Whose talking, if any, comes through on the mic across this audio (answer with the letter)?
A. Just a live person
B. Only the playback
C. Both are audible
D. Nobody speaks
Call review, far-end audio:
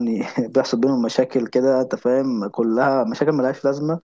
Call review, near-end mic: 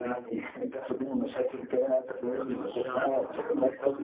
C